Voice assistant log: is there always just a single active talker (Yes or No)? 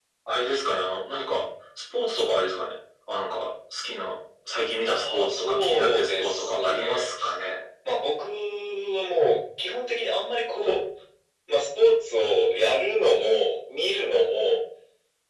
No